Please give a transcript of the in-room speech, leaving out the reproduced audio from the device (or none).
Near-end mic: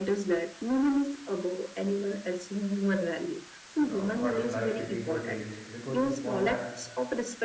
you know what they like to eat or drink, because a small act